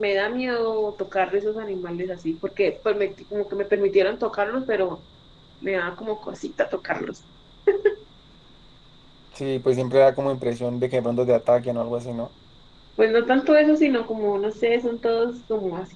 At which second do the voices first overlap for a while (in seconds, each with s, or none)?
none